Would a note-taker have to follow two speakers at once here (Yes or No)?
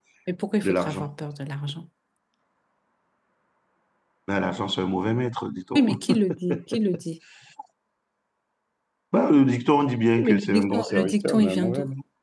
Yes